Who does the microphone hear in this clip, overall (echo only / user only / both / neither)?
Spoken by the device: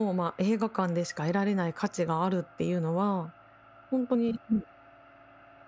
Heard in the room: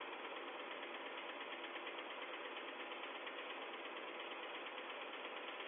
neither